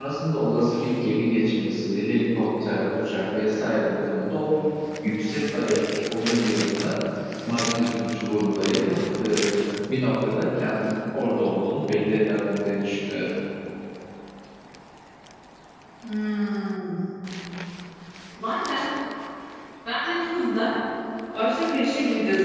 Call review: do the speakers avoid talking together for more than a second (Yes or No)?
Yes